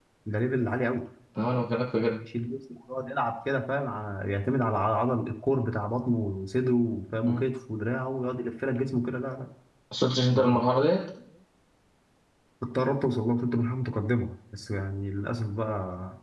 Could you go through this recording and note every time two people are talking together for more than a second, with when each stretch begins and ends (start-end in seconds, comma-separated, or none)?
none